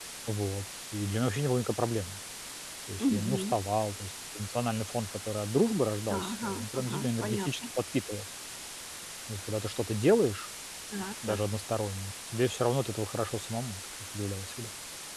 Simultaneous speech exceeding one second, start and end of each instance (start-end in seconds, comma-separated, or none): 6.2-7.5